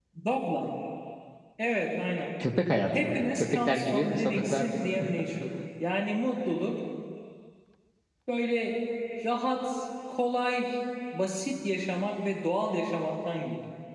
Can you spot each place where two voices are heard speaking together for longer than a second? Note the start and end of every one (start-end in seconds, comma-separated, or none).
2.9-4.8